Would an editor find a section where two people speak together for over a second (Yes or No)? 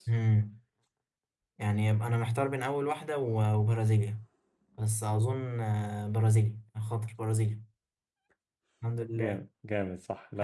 No